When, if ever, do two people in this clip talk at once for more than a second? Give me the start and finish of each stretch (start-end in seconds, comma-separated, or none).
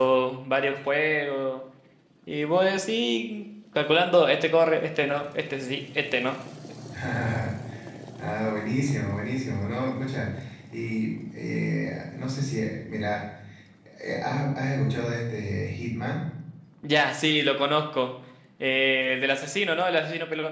none